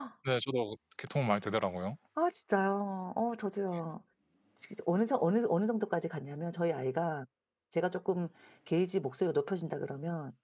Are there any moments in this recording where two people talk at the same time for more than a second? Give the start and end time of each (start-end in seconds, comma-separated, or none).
none